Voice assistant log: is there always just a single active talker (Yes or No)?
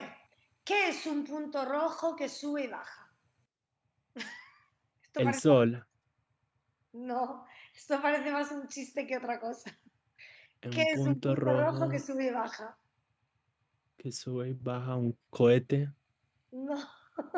No